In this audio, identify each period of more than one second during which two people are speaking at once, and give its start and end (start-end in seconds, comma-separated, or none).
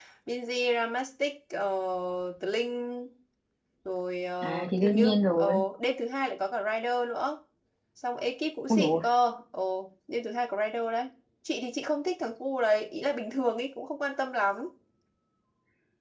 4.4-5.6